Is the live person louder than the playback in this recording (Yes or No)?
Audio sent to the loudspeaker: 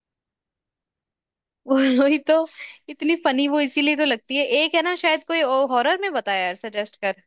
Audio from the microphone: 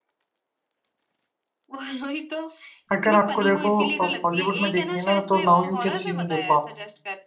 Yes